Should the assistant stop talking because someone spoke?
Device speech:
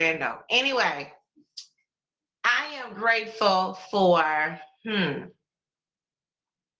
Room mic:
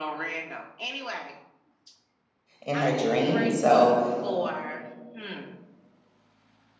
Yes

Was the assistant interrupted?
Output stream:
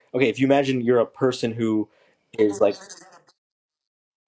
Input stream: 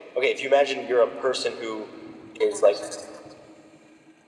No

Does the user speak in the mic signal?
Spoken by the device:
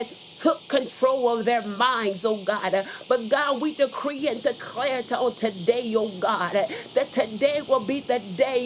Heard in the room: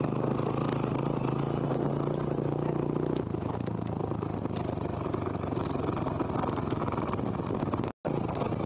No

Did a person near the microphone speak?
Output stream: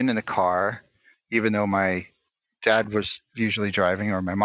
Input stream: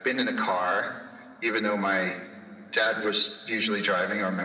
No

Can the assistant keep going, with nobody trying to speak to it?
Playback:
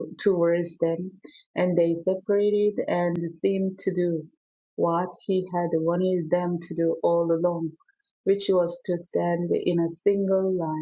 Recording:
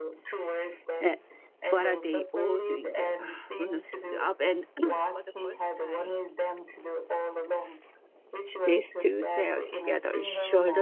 No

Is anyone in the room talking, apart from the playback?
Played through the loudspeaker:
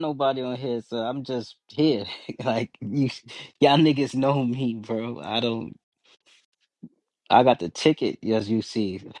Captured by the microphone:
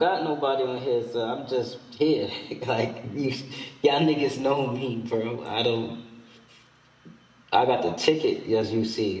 No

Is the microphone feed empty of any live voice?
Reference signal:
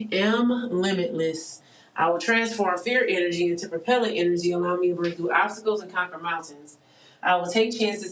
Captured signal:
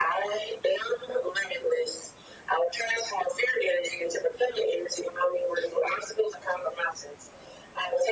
Yes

